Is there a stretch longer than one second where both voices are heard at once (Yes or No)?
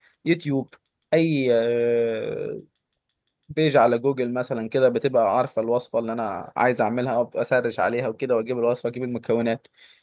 No